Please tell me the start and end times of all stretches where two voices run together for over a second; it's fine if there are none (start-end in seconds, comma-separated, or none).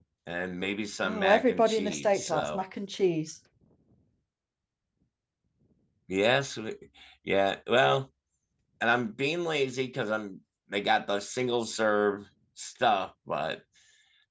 1.0-2.6